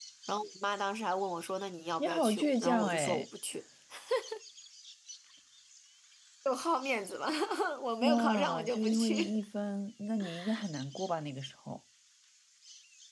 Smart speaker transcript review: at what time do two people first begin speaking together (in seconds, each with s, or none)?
2.0 s